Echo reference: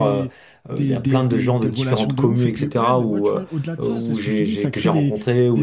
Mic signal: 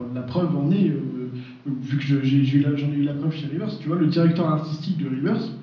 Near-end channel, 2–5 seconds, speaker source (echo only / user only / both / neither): user only